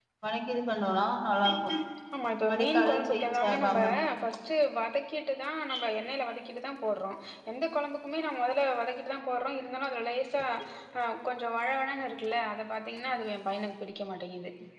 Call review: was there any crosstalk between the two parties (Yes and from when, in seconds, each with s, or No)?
Yes, from 2.5 s